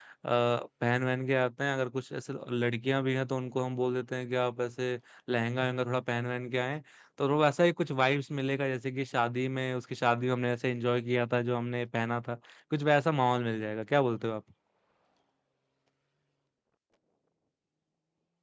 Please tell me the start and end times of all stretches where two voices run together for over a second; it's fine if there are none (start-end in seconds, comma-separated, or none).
none